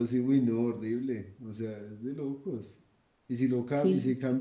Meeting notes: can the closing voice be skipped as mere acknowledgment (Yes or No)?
Yes